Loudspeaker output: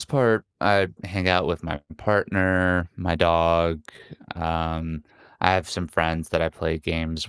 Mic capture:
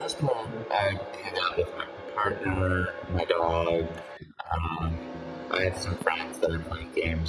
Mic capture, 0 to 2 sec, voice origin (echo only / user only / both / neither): echo only